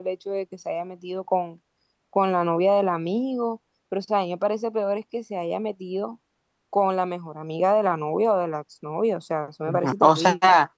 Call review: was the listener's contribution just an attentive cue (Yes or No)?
No